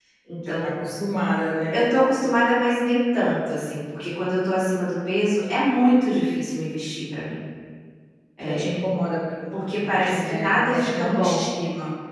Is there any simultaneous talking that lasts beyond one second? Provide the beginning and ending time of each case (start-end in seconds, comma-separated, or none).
9.7-11.5